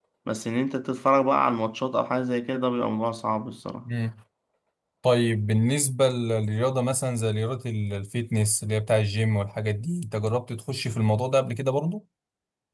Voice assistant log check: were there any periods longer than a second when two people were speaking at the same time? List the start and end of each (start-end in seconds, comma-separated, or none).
none